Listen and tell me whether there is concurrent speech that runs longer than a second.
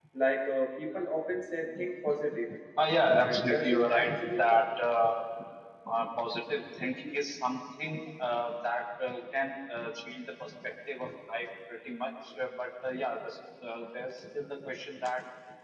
Yes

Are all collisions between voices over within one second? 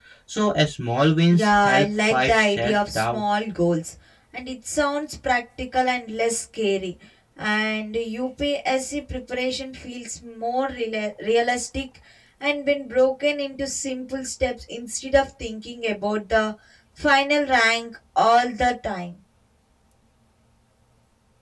No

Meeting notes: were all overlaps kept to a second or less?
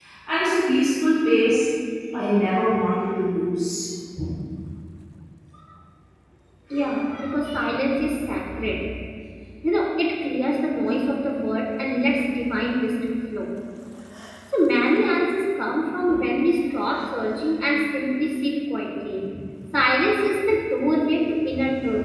Yes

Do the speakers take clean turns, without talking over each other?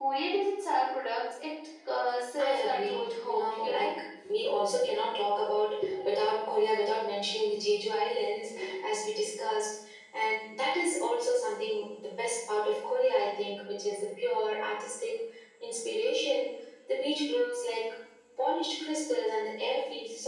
No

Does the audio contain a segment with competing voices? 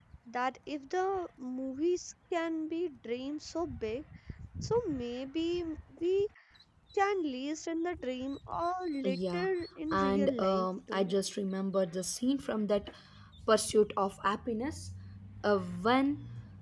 Yes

